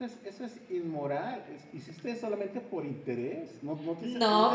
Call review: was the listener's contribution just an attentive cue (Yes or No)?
No